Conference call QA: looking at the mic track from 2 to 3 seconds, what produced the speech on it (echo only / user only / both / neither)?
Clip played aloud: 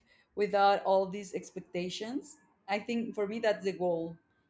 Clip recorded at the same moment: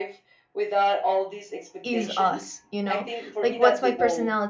both